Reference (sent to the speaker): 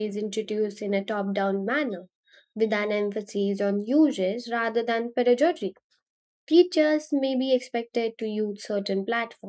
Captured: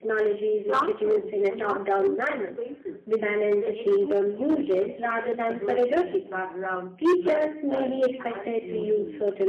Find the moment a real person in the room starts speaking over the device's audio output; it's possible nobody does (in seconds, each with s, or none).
0.7 s